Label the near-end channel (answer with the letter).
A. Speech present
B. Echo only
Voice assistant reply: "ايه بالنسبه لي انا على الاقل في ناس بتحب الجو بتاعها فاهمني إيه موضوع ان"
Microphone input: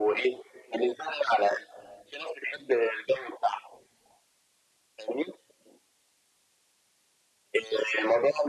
B